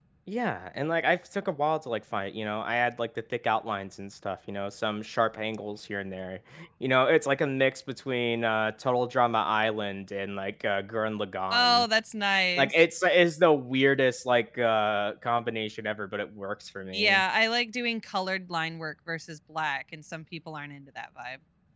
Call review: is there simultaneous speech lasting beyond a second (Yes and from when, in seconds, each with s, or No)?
No